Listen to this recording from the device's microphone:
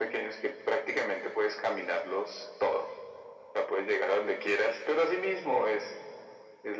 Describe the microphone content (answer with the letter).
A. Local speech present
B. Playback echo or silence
B